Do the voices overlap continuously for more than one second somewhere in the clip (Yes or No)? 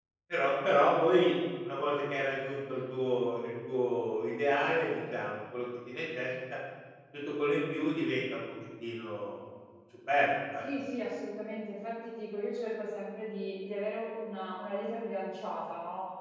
No